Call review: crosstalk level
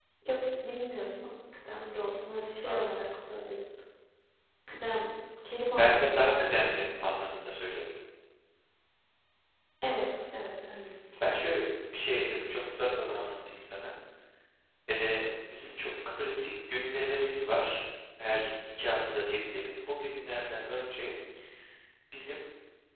present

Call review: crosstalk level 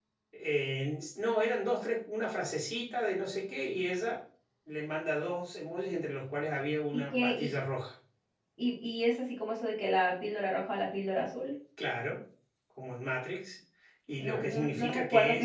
present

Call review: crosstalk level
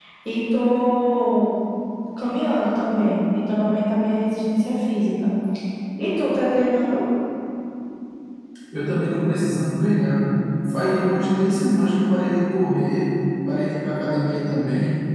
none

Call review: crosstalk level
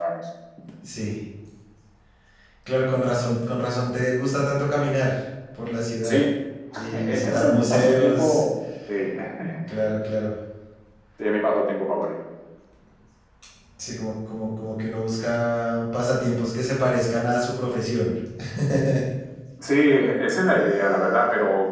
present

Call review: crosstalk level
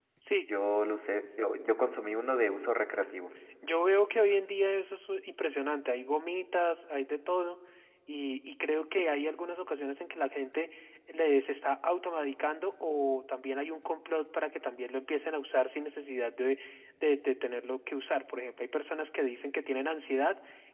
none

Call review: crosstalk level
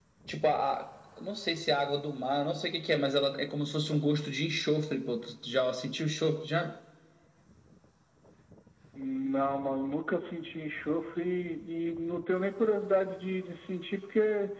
none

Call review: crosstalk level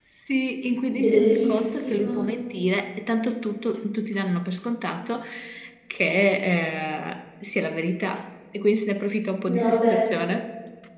present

